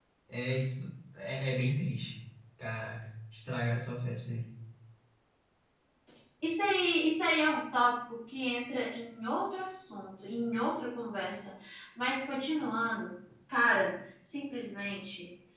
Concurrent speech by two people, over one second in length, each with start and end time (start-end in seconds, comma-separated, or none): none